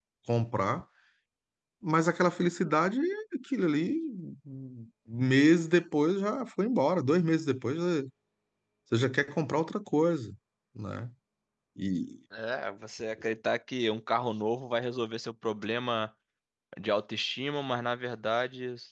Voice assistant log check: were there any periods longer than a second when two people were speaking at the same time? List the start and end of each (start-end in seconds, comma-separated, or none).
none